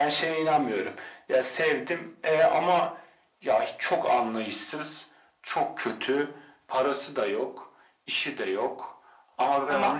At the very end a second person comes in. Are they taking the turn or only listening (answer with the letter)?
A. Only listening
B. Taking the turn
A